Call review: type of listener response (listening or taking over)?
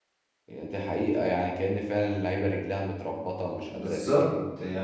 taking over